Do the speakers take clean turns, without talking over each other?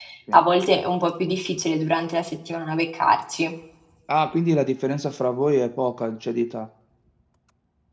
Yes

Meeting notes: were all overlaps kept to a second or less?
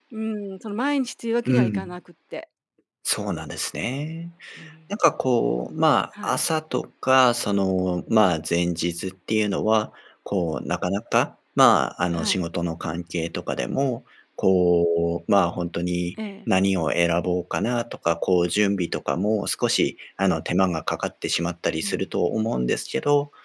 Yes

